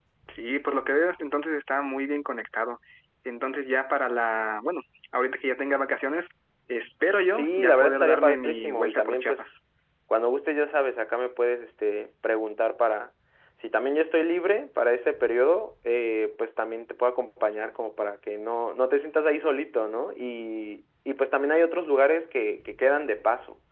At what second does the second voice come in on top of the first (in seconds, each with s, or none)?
7.3 s